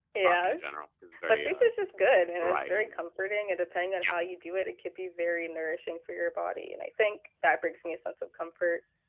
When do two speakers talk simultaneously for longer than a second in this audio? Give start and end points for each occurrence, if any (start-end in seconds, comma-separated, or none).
none